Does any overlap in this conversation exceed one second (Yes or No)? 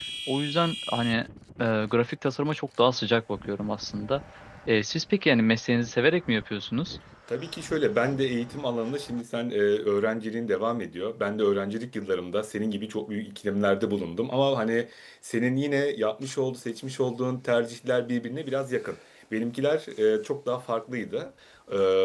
No